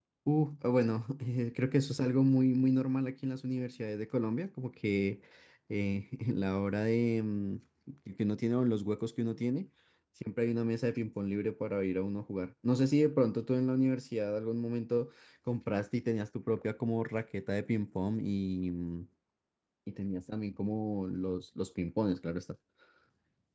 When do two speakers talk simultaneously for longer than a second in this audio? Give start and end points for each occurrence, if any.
none

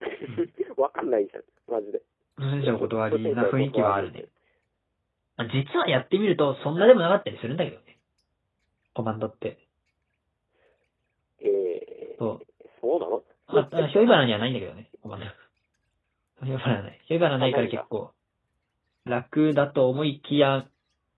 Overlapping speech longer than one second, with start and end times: 2.6-4.2

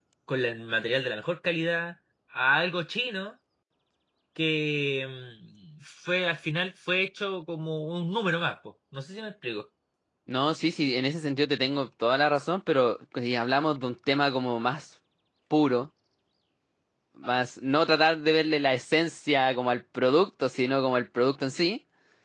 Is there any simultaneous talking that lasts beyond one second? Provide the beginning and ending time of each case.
none

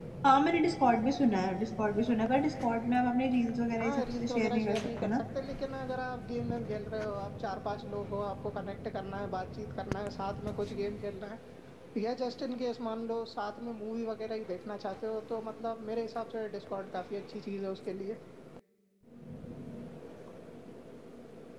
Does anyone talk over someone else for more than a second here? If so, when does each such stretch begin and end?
3.8-5.2

